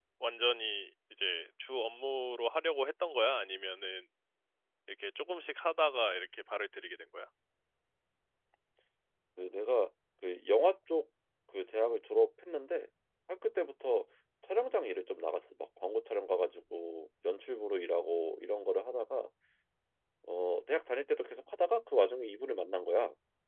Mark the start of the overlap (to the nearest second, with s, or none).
none